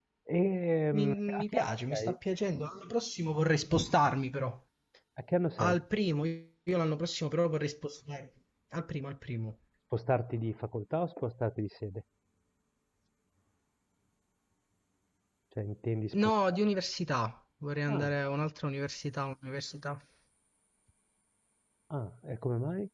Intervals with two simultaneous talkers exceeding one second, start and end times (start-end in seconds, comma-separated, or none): 0.9-2.2